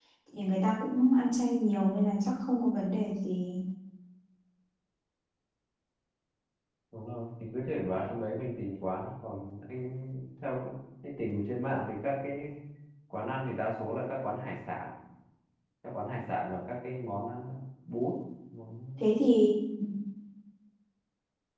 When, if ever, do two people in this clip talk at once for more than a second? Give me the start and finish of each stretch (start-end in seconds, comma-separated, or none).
none